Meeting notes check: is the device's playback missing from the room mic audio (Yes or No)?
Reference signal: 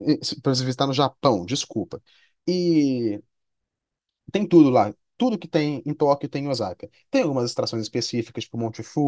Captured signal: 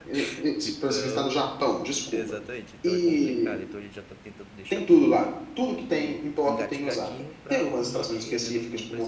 No